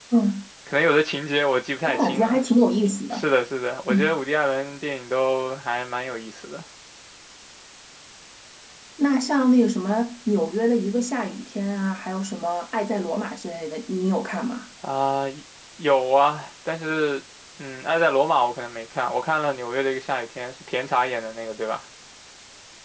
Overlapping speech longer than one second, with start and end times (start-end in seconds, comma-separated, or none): none